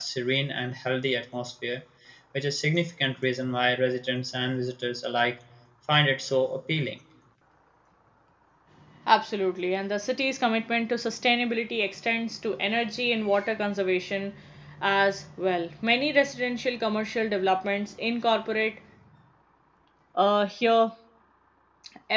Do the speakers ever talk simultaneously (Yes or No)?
No